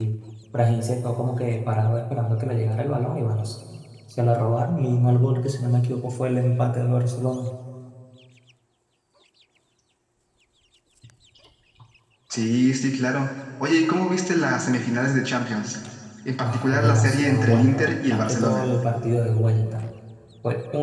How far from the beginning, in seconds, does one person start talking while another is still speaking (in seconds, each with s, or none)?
16.4 s